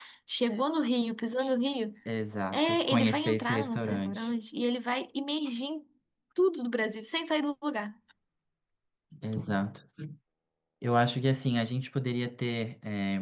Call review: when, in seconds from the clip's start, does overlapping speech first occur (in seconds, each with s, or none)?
2.5 s